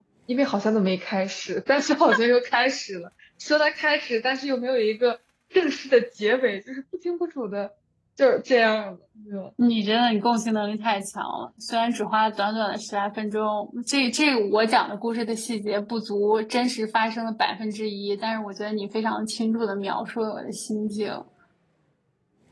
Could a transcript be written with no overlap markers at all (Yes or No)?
Yes